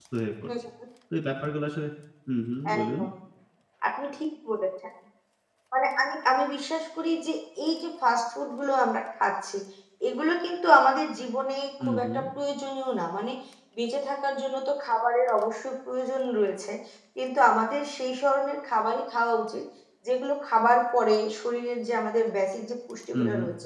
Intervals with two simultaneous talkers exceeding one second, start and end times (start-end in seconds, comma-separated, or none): none